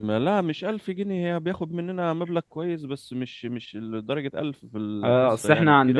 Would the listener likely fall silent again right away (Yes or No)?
No